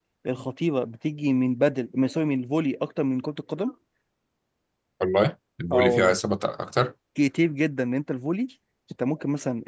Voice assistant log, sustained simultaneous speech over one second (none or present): none